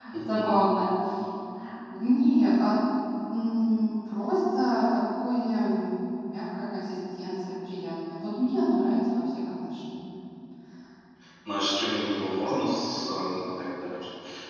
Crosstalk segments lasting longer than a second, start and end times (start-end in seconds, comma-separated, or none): none